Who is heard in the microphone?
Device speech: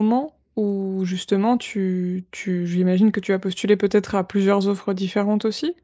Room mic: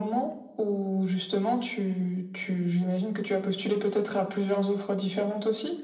echo only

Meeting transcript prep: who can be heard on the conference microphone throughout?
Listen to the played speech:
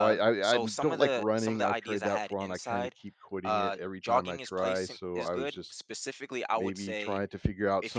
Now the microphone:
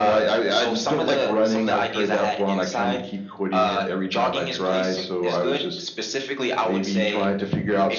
echo only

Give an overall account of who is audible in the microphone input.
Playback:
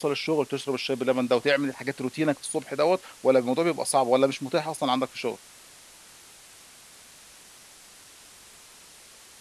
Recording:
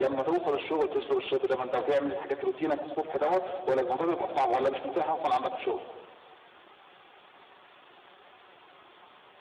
echo only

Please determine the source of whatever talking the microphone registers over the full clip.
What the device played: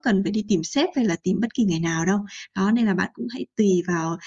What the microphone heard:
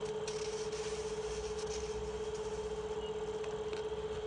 neither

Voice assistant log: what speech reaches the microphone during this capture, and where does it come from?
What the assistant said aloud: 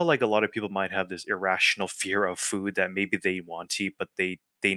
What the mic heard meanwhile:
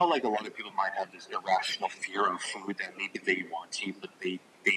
echo only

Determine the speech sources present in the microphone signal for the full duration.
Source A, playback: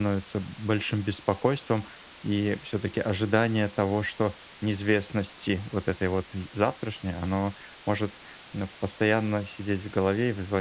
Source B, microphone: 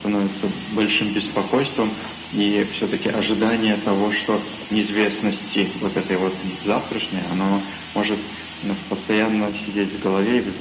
echo only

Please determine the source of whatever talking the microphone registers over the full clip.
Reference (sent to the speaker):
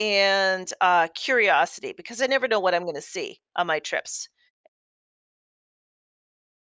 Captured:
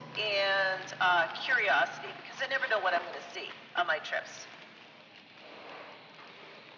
echo only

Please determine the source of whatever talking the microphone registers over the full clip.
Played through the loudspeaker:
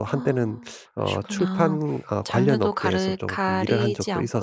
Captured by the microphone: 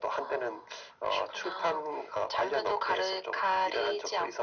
echo only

